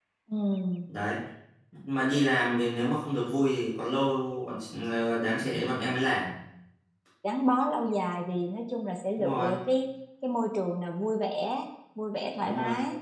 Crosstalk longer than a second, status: none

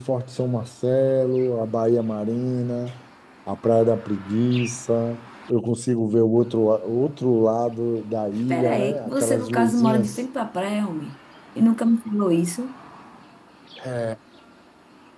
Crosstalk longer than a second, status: present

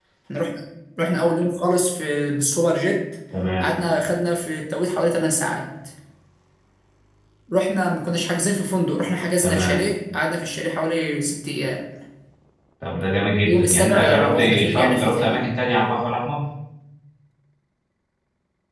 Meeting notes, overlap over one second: present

